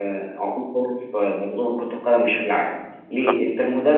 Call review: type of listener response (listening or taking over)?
listening